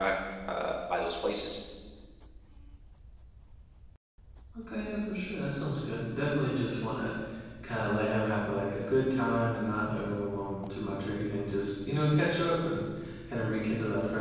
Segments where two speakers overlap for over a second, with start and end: none

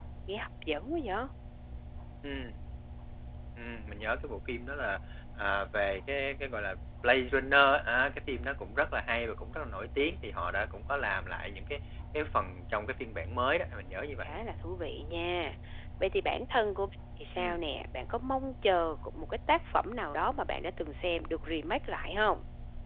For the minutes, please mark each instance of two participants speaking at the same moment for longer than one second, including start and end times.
none

